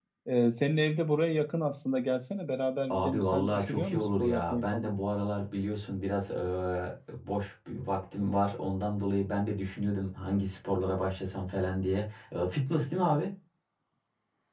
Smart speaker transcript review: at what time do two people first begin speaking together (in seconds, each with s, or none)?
2.9 s